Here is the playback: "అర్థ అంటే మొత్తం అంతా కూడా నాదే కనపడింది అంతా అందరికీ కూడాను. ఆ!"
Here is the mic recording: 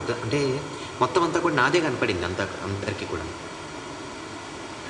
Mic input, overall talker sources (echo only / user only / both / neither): echo only